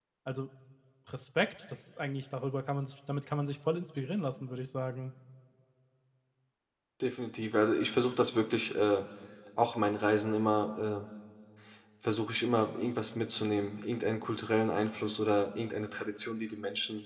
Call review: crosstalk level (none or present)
none